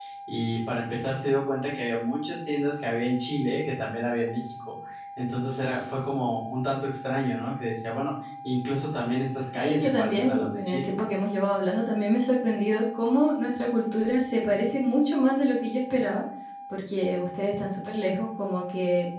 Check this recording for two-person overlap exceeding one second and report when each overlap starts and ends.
9.6-10.9

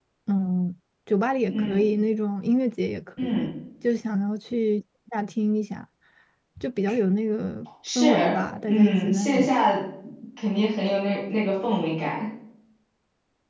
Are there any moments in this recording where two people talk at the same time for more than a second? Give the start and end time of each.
8.0-9.6

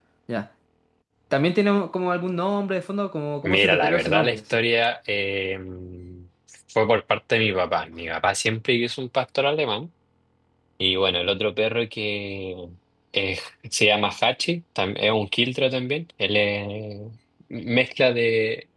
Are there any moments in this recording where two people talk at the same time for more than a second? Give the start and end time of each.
3.4-4.6

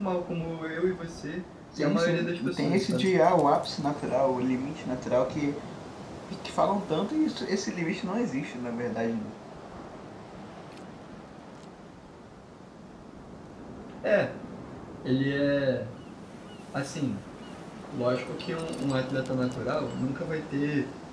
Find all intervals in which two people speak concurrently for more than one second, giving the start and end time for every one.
1.8-3.1

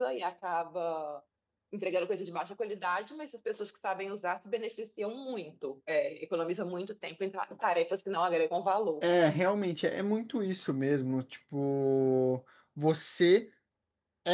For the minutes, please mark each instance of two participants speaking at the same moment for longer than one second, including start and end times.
none

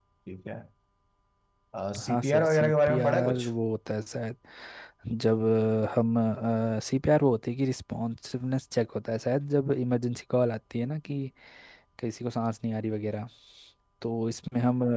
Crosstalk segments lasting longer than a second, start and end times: 2.1-3.5

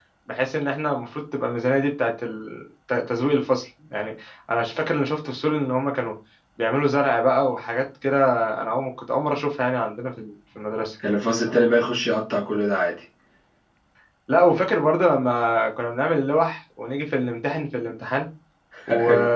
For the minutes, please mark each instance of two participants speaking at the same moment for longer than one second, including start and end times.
none

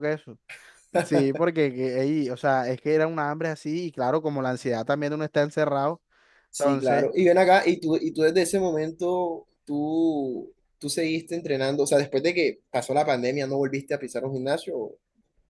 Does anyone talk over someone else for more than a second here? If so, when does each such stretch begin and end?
none

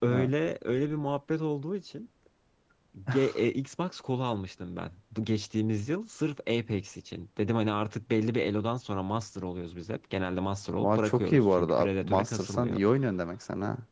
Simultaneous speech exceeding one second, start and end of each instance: 10.8-12.8

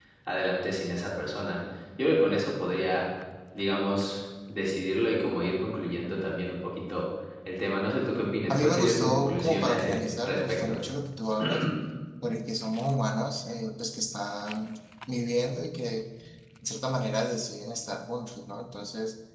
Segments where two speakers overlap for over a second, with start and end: 8.5-10.8

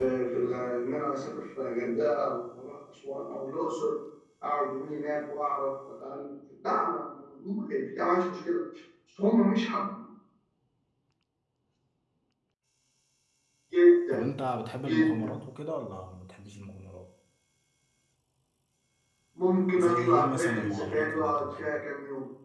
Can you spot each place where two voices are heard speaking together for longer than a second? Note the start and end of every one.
19.8-21.8

